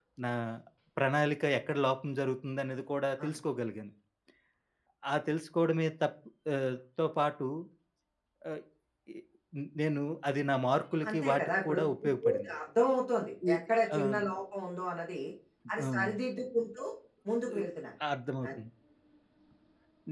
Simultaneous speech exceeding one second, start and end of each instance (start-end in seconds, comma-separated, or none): 11.1-12.5